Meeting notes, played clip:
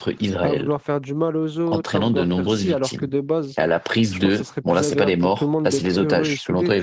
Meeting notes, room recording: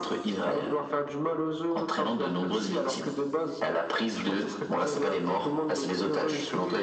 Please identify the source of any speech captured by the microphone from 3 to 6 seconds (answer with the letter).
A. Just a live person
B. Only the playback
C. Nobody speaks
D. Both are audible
B